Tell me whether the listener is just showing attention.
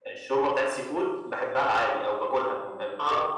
Yes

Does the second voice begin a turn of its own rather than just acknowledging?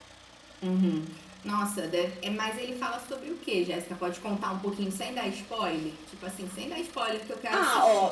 Yes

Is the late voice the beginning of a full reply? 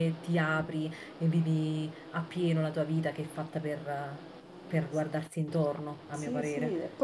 Yes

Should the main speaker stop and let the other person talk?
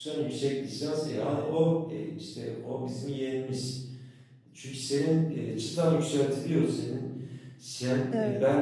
No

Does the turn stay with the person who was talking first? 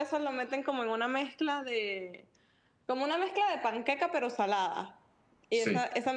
Yes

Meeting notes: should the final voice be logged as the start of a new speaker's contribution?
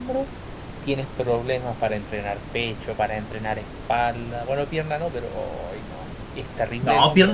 Yes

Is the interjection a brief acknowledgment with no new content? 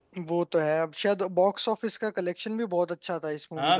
No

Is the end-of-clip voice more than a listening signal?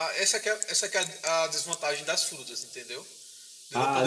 Yes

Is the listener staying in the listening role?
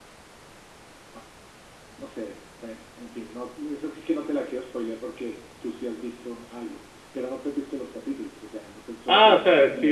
No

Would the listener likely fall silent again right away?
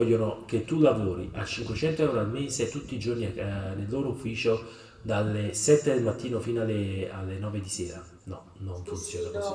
No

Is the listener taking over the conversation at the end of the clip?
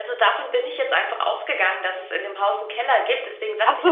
No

